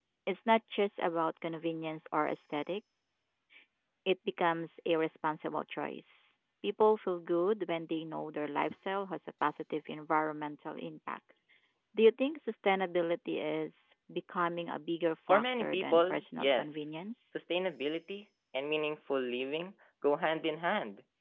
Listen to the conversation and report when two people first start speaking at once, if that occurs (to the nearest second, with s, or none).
15 s